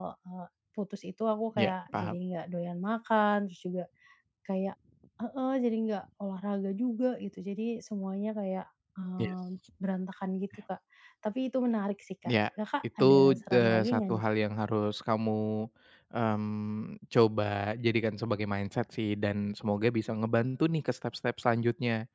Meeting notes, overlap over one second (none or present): present